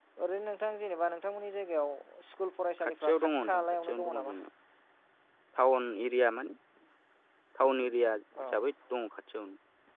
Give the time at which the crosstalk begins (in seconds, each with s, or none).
2.8 s